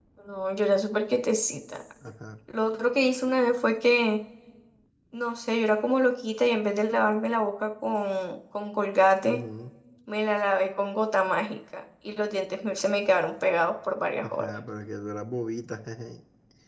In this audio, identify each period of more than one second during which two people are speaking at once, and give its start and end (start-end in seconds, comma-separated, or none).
none